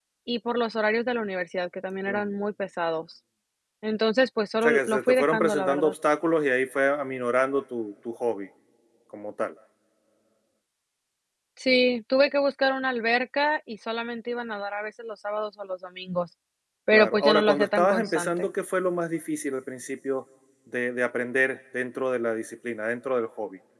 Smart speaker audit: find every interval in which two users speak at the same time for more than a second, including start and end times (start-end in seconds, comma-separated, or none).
4.6-5.9, 16.9-18.5